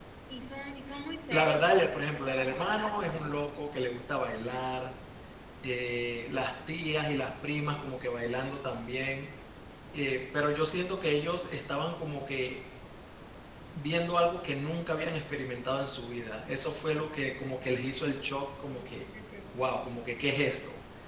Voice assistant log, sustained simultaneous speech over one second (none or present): present